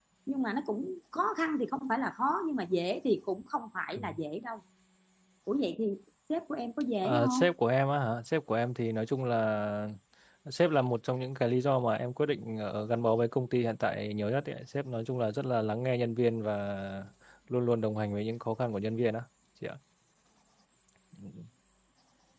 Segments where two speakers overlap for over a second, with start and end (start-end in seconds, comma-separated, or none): none